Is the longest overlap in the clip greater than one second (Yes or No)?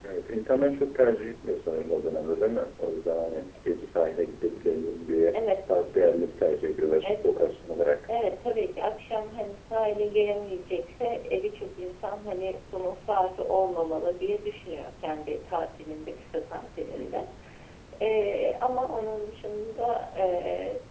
No